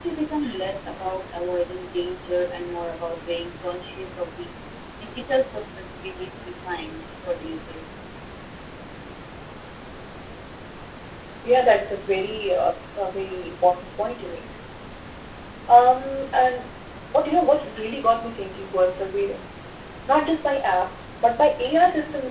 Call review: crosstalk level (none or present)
none